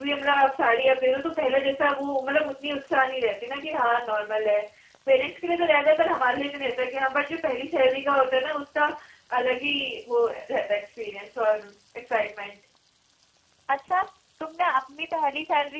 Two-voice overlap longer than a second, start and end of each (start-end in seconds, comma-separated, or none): none